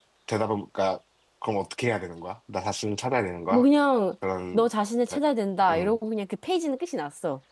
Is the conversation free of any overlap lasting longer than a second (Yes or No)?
Yes